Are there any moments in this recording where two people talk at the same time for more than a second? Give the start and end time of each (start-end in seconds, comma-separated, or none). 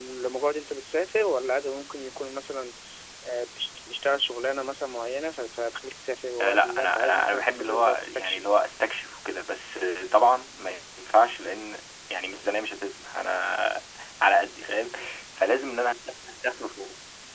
6.4-8.4